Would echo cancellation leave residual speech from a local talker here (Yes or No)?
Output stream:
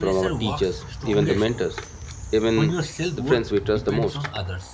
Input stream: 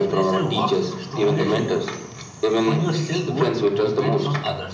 No